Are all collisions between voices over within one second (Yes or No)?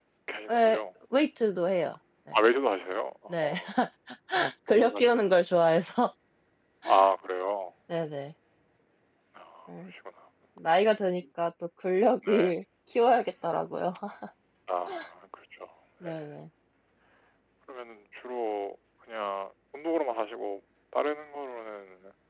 Yes